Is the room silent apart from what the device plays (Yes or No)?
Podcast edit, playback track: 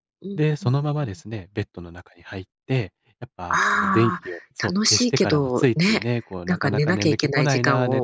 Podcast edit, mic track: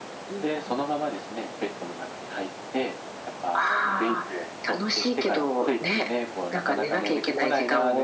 Yes